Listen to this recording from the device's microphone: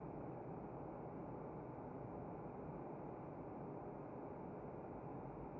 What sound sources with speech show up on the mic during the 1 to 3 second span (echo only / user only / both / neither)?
neither